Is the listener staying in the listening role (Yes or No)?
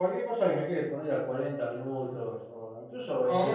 Yes